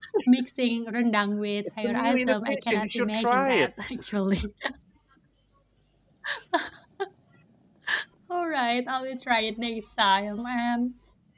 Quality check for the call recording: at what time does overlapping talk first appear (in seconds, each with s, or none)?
1.8 s